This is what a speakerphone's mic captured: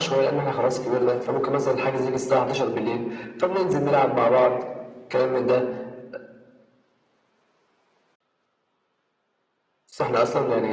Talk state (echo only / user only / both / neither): echo only